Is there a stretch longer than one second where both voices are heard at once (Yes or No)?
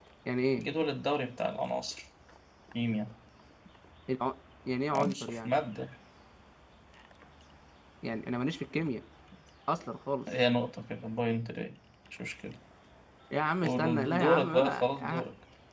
Yes